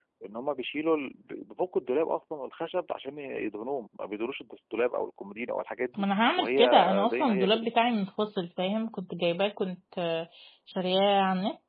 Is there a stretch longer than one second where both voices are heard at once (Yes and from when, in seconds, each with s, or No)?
Yes, from 6.0 s